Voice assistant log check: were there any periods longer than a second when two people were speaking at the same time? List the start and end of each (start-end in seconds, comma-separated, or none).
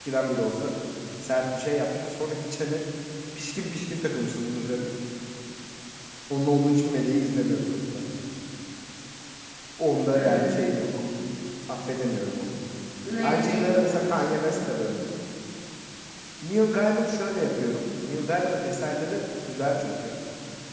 13.2-14.7